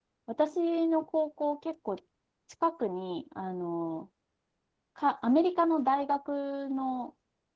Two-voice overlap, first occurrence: none

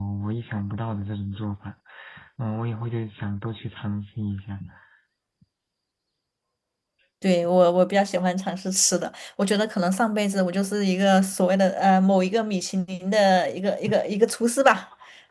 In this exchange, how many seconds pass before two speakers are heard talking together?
none

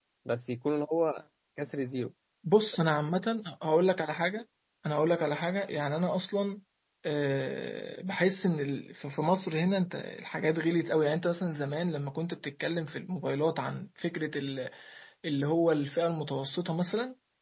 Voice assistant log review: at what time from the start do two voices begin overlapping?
none

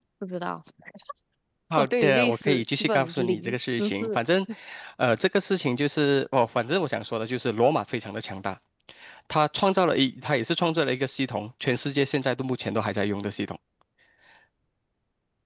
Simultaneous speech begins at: 1.8 s

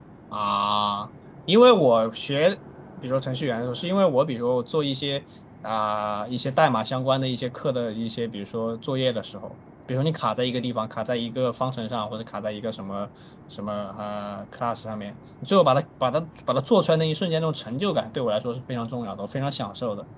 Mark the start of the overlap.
none

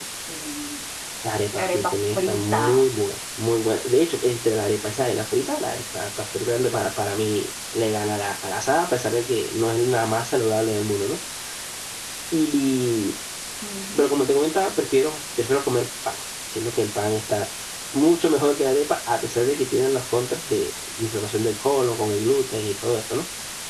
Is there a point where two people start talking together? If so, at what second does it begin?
1.6 s

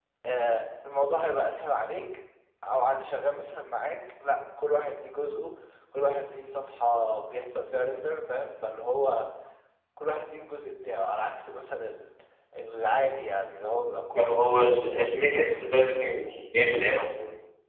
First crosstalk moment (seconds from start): 14.2 s

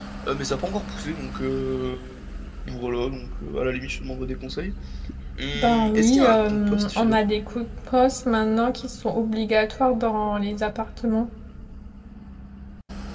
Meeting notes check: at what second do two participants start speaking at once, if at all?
5.5 s

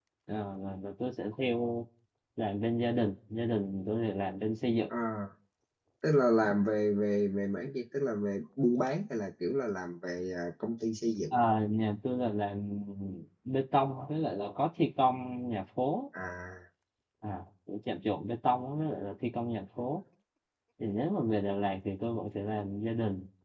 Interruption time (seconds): none

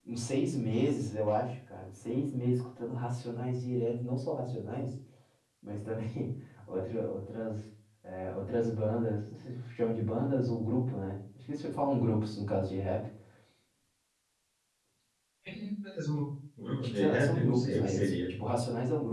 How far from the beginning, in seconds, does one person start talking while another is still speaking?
16.8 s

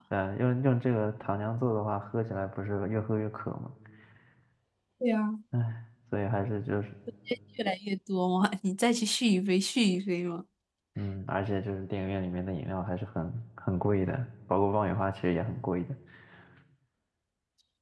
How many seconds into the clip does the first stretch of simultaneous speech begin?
none

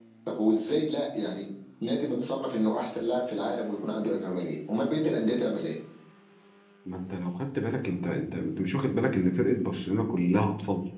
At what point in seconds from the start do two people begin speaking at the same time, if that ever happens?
none

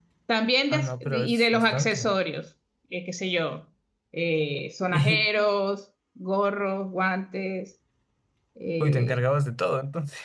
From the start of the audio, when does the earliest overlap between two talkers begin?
0.7 s

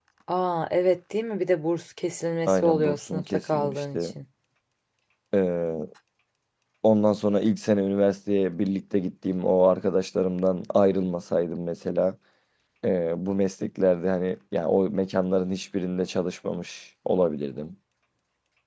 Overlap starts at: 2.5 s

